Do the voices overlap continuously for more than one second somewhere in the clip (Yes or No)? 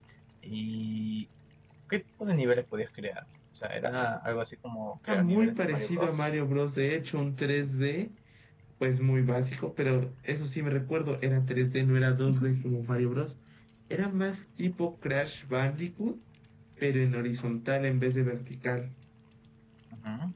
Yes